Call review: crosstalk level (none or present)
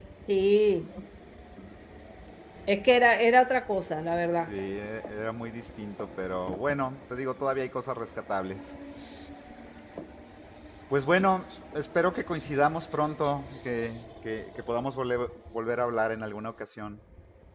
none